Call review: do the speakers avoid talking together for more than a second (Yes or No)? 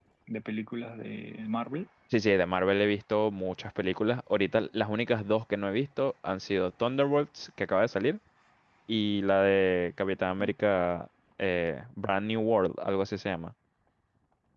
Yes